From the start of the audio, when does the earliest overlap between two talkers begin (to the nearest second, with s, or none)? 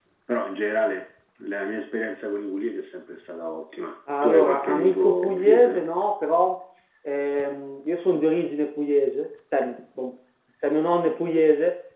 4 s